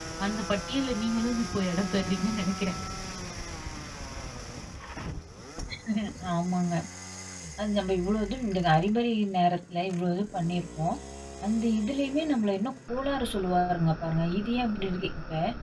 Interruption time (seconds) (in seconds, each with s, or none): none